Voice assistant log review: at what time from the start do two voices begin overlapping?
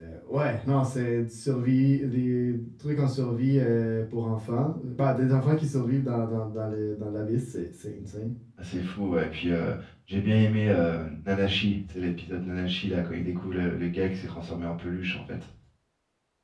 none

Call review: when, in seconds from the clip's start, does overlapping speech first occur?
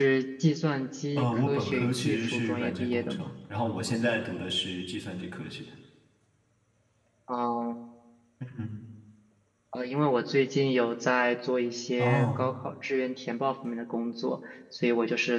1.2 s

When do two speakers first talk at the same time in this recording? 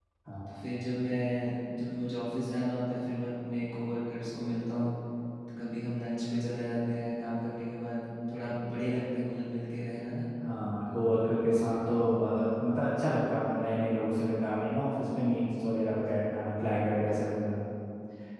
none

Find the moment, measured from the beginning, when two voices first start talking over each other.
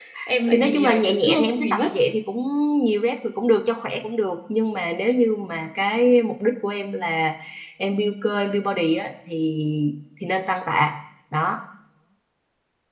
0.5 s

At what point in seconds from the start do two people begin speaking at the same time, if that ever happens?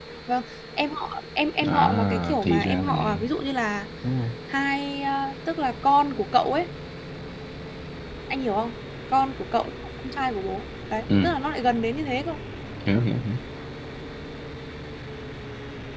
1.6 s

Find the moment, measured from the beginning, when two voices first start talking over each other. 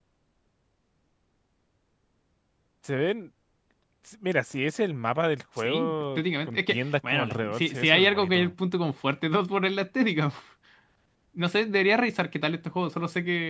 5.6 s

